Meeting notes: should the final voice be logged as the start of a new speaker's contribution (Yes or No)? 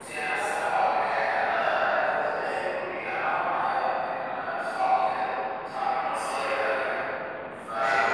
No